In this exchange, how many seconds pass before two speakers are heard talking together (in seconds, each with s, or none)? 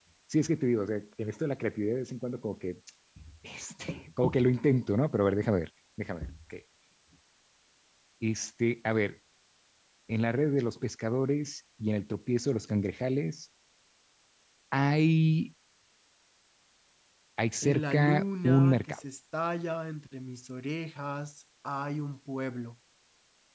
17.7 s